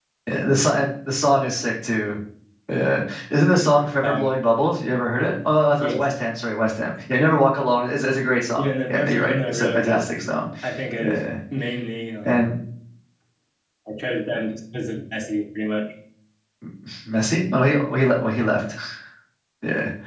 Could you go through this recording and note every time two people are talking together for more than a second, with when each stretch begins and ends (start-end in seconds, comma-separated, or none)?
8.6-10.1